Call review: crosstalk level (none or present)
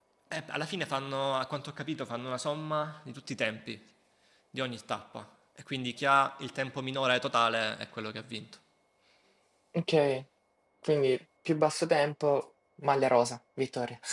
none